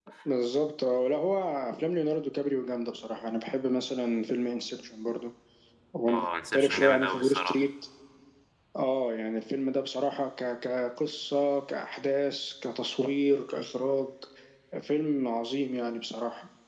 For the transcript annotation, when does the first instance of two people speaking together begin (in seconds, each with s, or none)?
6.1 s